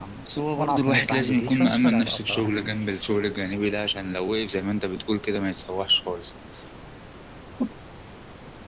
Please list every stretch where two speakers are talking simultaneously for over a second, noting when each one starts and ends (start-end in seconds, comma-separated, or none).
0.6-2.8